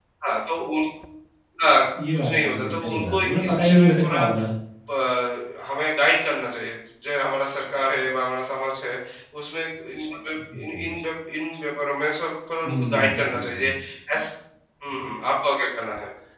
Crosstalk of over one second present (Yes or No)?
Yes